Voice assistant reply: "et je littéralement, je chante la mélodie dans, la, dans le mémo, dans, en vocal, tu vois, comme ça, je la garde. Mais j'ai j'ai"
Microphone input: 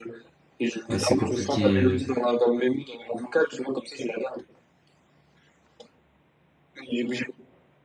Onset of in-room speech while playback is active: 1 s

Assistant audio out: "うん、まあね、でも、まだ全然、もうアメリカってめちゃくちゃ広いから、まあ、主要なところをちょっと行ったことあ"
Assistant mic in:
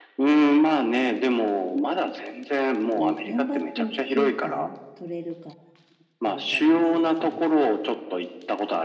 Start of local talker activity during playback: 3 s

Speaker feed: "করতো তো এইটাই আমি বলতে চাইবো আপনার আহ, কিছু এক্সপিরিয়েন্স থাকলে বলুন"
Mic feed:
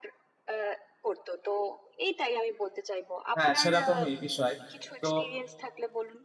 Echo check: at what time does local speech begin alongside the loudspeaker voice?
3 s

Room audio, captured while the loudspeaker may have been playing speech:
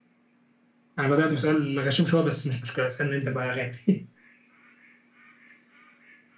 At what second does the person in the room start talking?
1 s

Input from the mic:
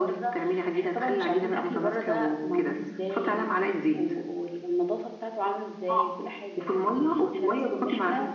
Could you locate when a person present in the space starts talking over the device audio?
none

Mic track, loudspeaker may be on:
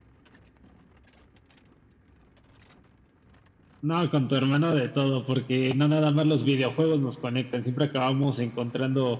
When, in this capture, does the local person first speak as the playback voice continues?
none

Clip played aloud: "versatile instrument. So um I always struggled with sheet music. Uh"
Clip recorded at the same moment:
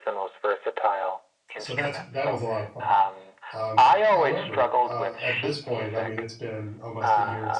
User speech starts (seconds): 2 s

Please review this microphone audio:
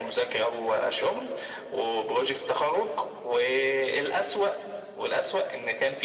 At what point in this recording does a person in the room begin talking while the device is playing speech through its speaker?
none

